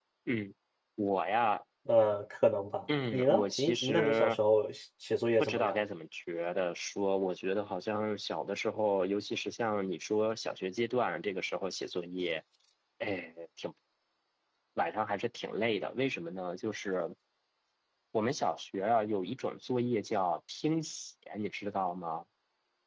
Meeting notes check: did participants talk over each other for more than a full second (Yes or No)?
Yes